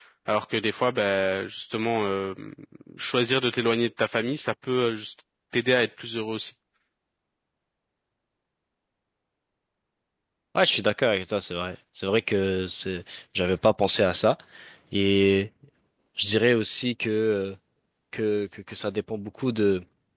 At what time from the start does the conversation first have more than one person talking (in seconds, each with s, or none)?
none